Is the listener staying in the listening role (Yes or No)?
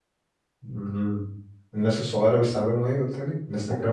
No